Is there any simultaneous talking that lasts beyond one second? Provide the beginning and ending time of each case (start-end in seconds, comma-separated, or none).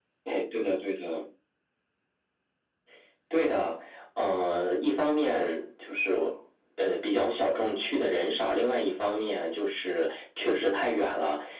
none